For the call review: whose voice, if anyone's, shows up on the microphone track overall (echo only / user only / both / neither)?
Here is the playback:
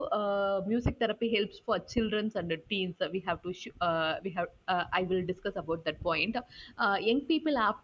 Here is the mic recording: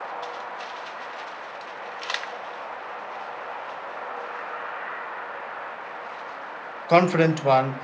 user only